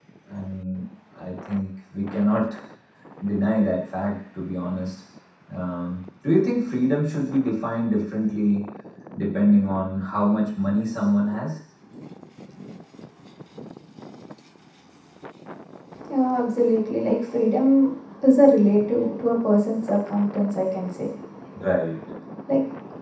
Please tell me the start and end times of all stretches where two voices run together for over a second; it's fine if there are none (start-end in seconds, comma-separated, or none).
none